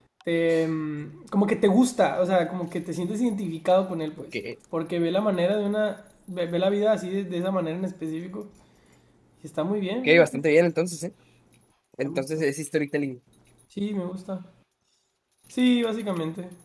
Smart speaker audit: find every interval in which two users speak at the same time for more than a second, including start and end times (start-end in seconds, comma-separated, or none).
none